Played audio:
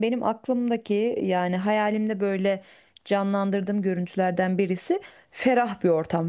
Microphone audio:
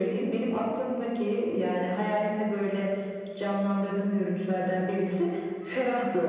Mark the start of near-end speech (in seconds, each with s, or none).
none